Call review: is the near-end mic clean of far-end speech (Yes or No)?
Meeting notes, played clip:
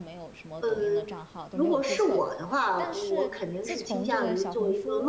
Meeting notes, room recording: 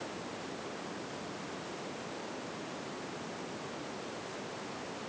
Yes